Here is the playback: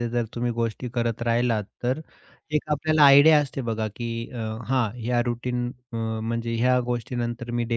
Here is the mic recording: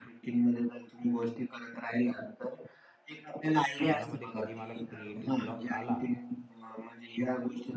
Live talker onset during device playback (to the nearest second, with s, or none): 4 s